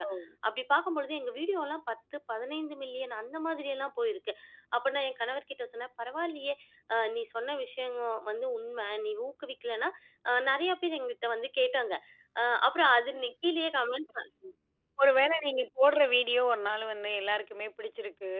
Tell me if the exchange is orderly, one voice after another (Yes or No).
Yes